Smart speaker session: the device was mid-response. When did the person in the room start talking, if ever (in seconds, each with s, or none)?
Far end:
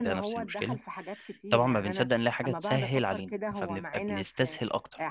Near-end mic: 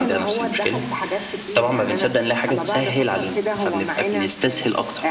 none